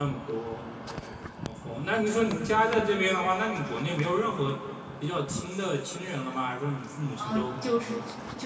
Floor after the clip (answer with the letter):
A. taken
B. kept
A